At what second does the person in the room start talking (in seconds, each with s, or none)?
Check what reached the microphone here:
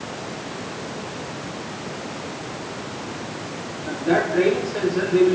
3.8 s